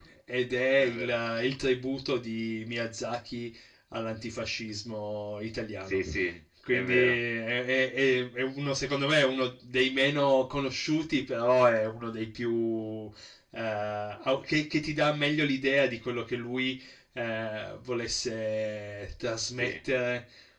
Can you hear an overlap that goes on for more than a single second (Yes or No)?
No